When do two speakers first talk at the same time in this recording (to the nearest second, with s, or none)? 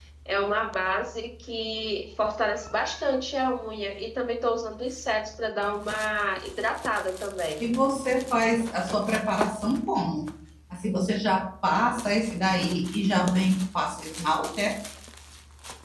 none